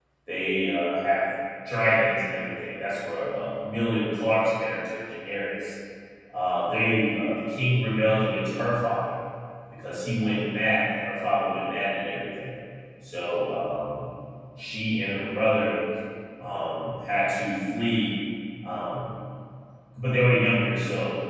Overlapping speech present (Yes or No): No